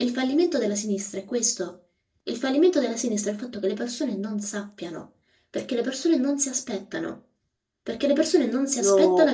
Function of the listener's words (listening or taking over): listening